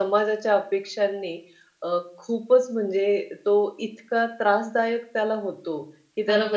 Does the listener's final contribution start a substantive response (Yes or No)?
No